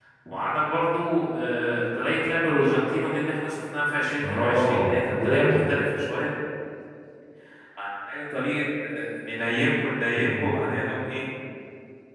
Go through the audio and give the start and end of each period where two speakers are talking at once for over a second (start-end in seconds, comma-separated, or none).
4.2-5.6